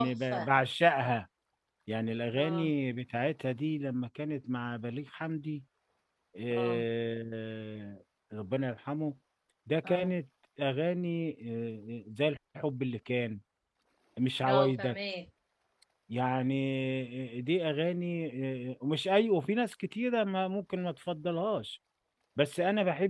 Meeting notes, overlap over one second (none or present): none